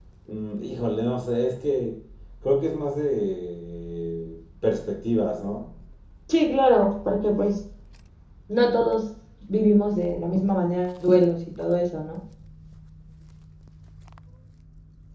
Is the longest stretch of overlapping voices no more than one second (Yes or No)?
Yes